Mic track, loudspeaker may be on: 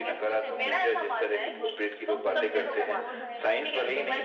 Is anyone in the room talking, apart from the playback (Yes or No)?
Yes